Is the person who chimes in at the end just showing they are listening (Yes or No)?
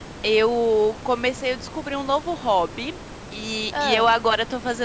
Yes